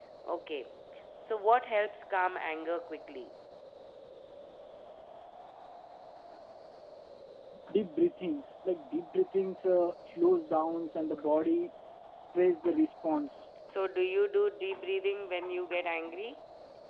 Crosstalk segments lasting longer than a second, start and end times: none

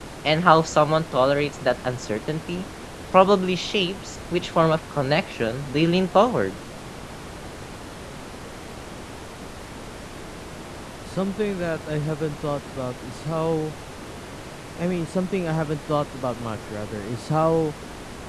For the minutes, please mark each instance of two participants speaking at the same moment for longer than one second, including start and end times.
none

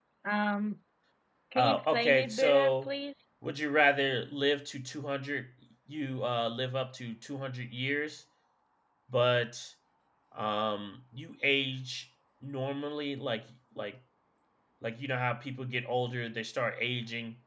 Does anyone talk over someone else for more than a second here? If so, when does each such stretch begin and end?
1.6-2.9

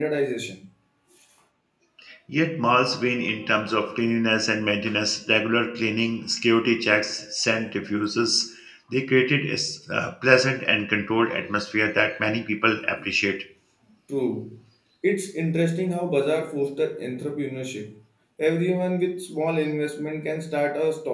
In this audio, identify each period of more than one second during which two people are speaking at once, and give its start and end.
none

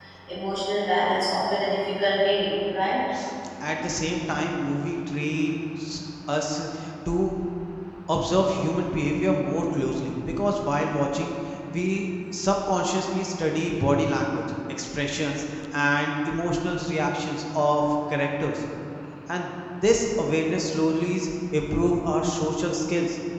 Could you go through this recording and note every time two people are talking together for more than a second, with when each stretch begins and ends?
none

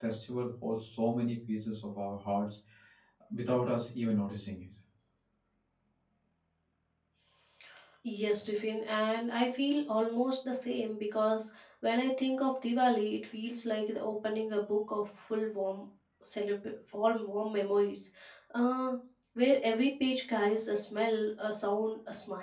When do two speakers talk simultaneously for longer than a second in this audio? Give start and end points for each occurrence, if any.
none

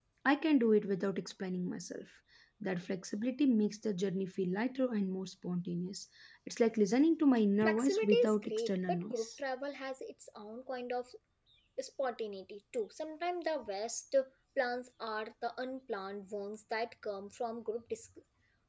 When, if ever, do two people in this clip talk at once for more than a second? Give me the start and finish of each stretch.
7.6-9.3

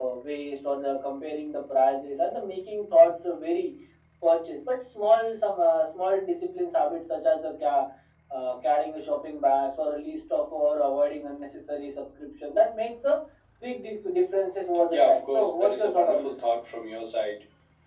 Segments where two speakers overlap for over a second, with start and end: 14.9-16.3

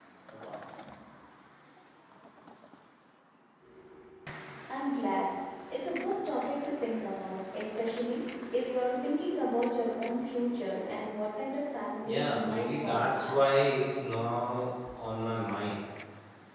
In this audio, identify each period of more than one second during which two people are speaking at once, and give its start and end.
12.1-13.4

